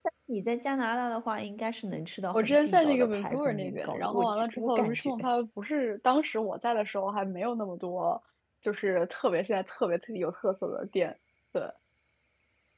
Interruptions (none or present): present